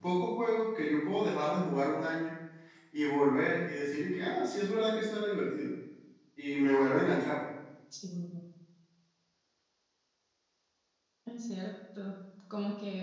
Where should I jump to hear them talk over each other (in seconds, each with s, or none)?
none